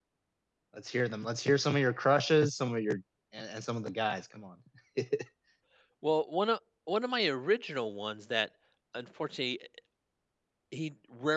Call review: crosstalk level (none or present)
none